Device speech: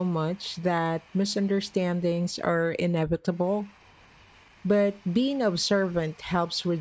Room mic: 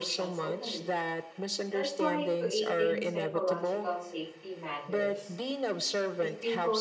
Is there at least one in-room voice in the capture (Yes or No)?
Yes